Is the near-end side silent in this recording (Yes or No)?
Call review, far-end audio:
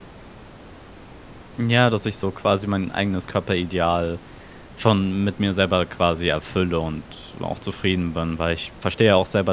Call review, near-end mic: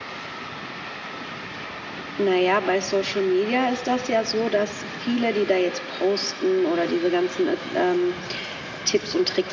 No